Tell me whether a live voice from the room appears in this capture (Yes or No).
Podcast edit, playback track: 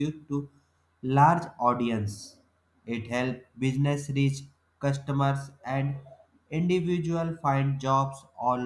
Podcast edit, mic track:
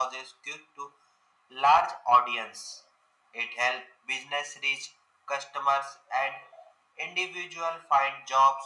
No